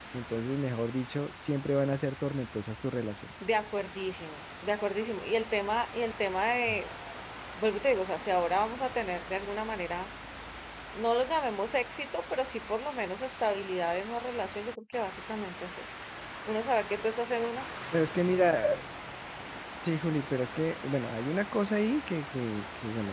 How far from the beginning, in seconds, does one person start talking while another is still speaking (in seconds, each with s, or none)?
none